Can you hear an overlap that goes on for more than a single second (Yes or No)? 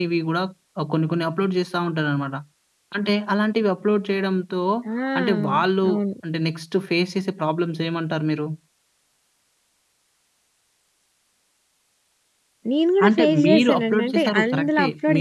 Yes